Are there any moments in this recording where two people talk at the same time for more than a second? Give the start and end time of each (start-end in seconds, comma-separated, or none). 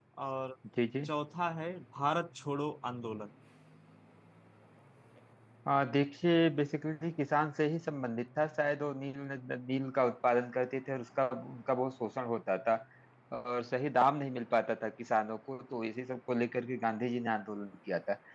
none